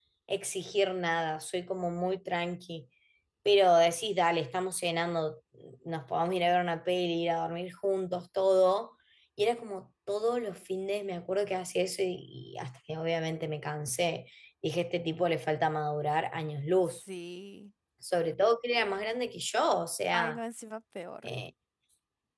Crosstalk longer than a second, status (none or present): none